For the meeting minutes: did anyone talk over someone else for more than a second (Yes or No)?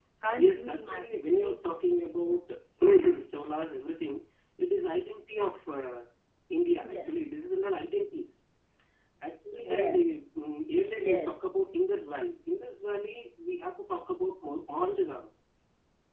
Yes